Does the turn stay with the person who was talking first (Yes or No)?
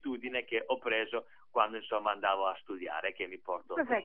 No